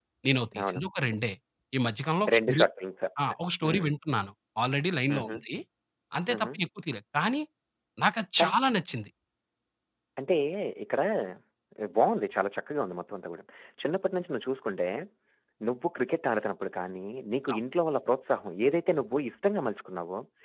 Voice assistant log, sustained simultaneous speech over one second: none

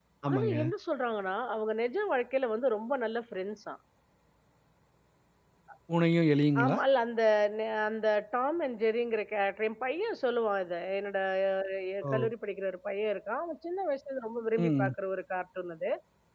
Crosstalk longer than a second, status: none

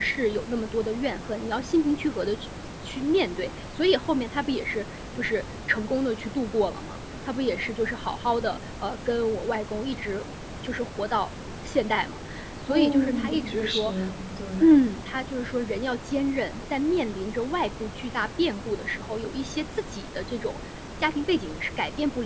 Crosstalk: present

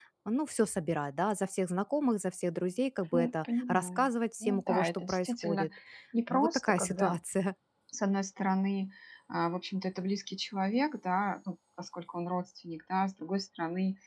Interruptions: present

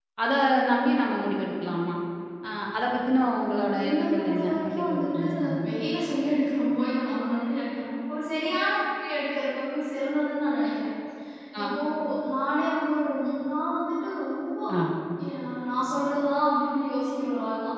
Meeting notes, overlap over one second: present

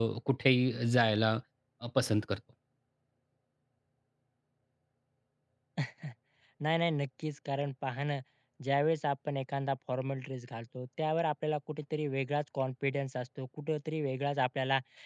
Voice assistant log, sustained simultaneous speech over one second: none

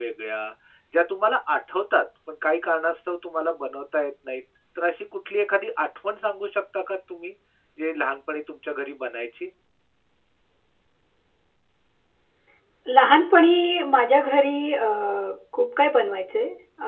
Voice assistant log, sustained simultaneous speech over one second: none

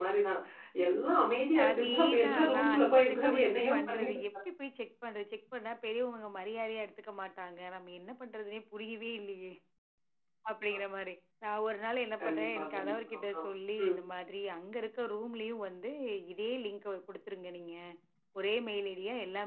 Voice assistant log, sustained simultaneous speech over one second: present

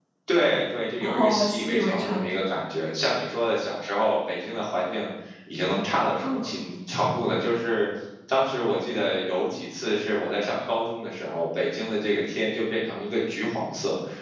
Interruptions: present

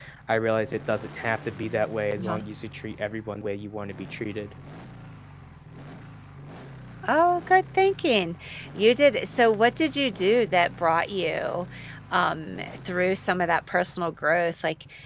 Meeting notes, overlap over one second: none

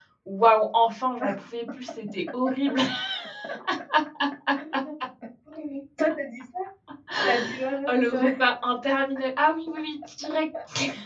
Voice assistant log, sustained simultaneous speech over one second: none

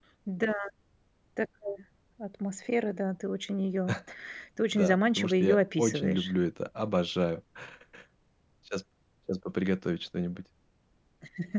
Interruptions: present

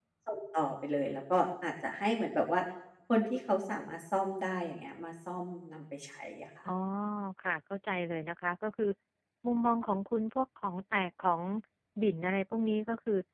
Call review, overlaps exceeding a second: none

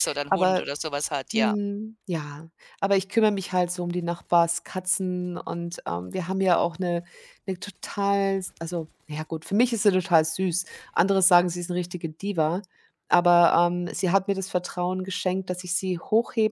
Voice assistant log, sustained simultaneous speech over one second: none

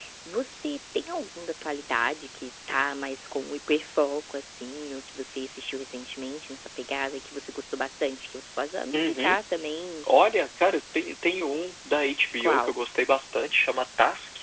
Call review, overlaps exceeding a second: none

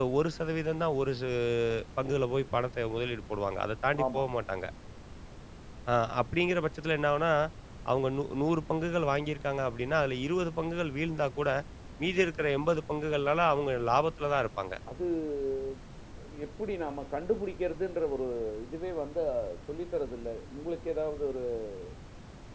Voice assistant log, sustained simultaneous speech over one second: none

